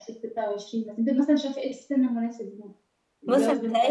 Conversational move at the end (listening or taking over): taking over